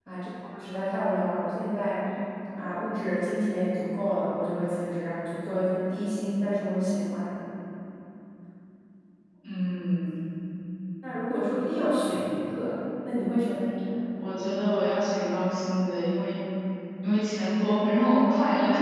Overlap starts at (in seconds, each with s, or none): none